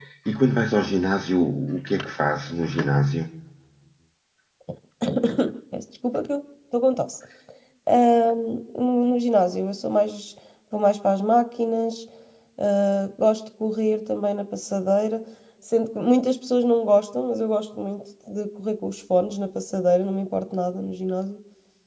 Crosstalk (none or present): none